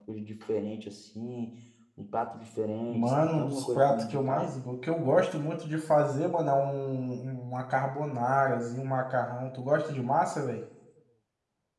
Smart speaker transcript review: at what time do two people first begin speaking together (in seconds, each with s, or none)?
2.9 s